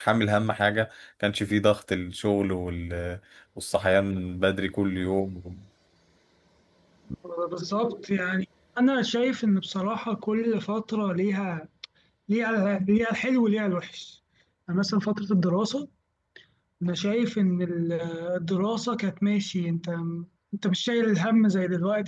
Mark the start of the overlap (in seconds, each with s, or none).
none